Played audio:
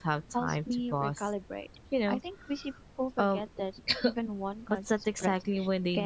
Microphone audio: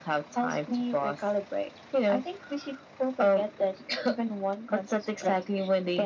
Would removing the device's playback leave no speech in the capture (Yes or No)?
Yes